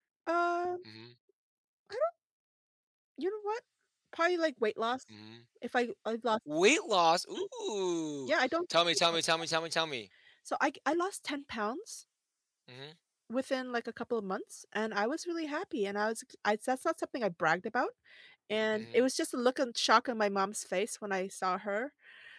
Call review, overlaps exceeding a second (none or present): none